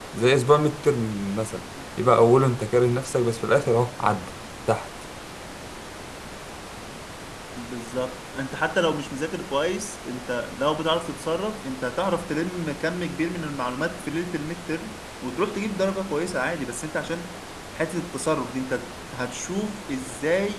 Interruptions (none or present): none